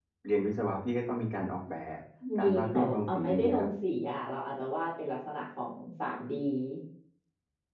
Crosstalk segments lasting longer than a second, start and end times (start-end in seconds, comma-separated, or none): 2.4-3.7